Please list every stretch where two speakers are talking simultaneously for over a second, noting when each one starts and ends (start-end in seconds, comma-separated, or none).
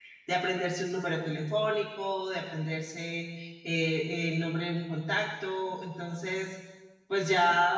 none